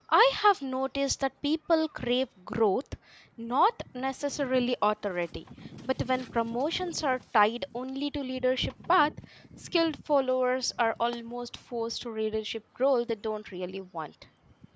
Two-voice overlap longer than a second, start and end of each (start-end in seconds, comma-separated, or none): none